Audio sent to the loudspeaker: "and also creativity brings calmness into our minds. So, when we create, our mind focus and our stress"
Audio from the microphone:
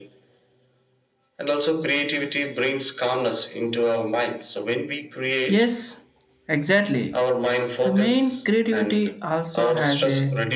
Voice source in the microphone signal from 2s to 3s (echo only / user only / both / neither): echo only